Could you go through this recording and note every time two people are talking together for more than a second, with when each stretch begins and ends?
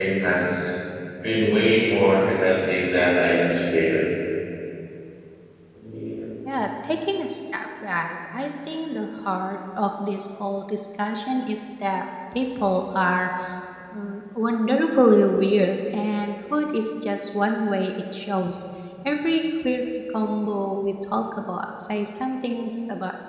none

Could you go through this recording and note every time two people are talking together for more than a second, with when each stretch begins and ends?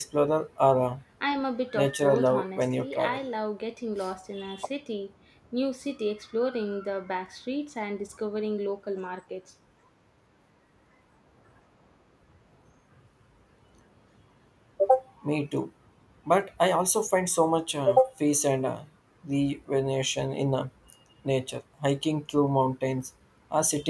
1.8-3.2

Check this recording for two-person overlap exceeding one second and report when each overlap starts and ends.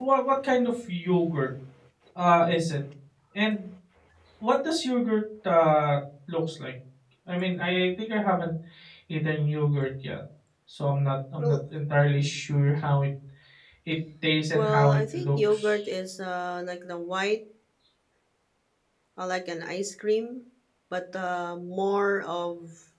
14.5-15.8

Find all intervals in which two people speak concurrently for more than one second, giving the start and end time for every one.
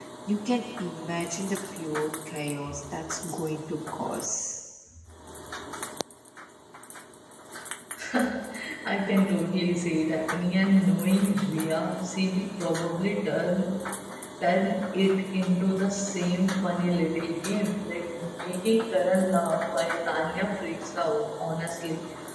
none

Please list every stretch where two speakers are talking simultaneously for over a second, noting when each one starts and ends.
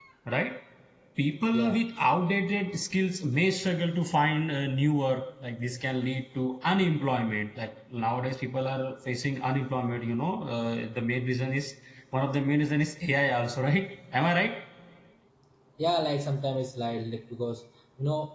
none

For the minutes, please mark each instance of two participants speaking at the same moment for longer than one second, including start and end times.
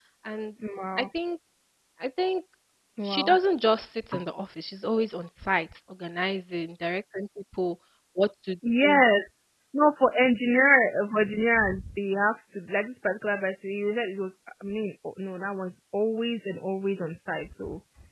none

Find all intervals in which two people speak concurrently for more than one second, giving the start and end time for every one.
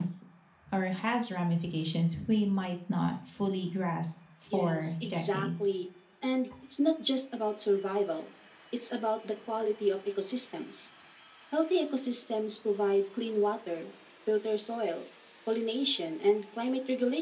4.5-5.7

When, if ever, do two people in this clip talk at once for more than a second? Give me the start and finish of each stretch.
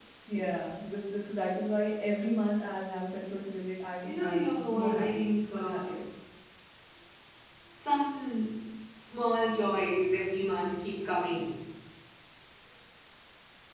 4.0-5.9

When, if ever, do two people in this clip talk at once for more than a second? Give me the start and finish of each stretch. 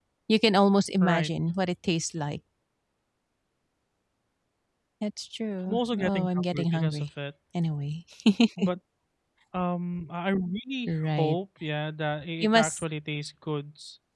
5.7-7.1

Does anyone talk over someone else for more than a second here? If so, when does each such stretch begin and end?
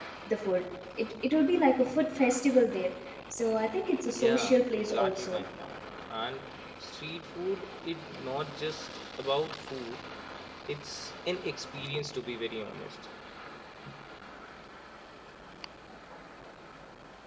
4.1-5.4

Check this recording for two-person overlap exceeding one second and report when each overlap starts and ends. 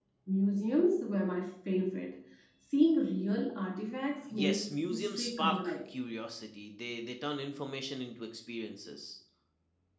4.3-5.8

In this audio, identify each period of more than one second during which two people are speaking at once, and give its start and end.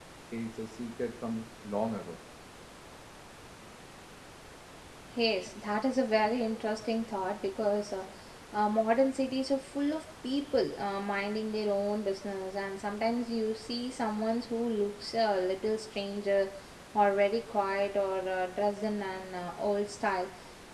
none

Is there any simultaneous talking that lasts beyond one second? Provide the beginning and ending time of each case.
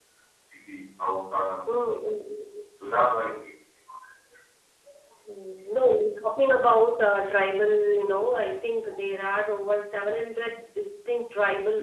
none

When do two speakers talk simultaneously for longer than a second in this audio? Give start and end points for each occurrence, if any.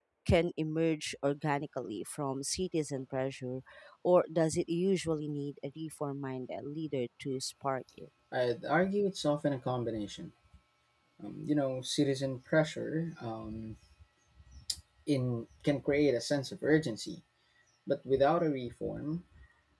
none

